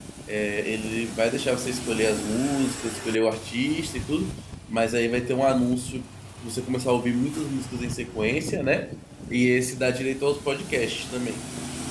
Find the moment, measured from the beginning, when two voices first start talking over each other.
none

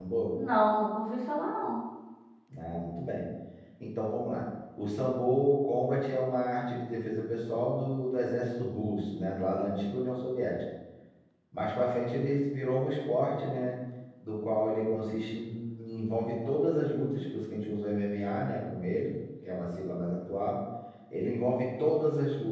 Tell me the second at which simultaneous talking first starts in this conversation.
none

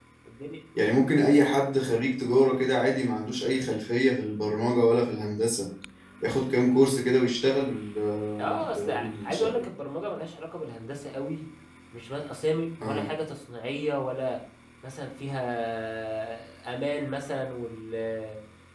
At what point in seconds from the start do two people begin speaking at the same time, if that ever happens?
8.4 s

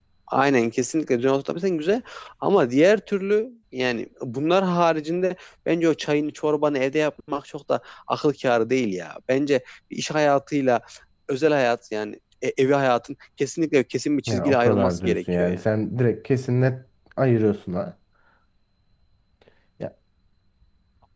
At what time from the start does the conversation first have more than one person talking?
14.3 s

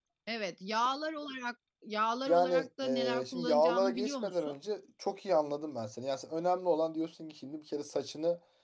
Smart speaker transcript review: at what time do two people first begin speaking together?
2.3 s

